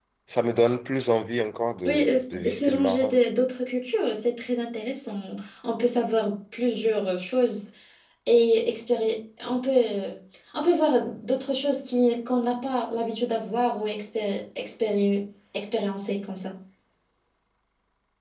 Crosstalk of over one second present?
Yes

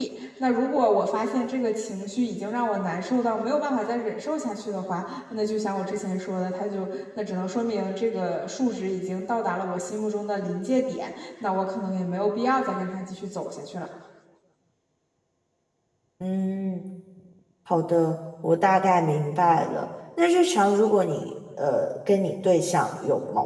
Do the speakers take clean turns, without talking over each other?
Yes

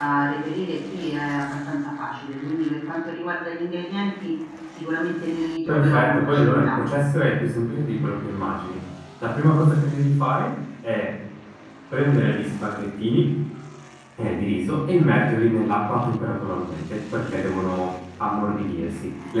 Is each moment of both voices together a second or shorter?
No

